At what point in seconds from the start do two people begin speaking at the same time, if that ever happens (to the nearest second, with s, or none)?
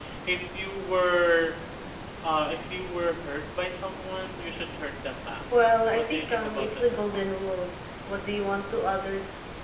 6 s